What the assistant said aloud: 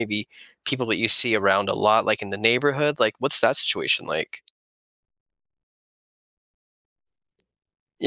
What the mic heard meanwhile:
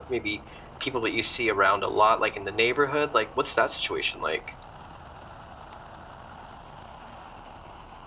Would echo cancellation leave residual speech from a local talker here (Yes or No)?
No